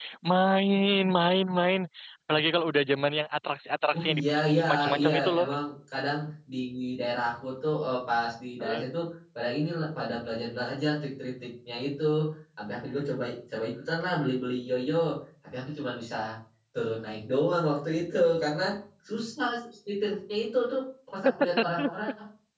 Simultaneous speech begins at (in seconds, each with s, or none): 3.9 s